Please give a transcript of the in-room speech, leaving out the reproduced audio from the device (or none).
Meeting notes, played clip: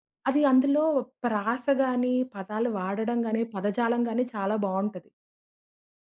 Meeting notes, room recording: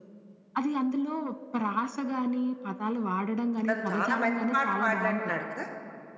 అతను చాలా మంచి పాటలు పాడినట్టున్నాడు కదా!